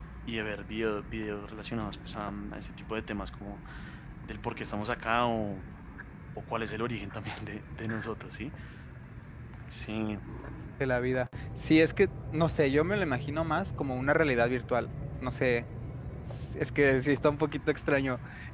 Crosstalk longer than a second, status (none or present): none